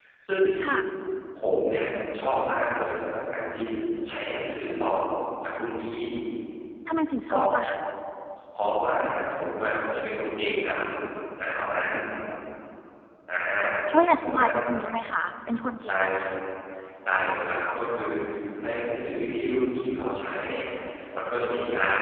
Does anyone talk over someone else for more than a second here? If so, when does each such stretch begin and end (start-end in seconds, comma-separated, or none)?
none